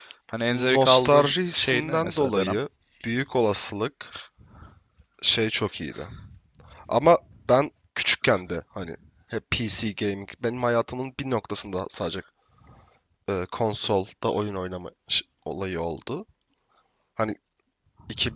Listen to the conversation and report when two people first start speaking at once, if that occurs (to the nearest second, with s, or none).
1 s